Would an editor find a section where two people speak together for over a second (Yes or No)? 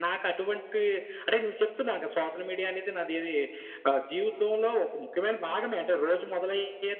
No